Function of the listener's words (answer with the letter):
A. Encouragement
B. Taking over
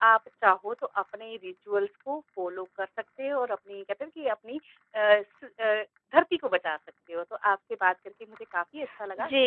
B